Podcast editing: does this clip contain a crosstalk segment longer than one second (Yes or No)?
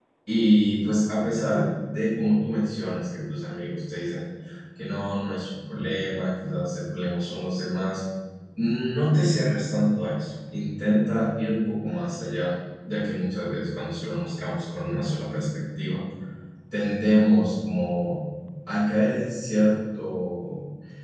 No